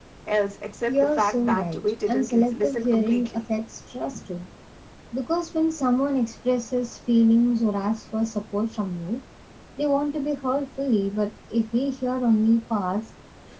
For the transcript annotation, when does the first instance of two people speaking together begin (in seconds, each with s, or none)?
0.9 s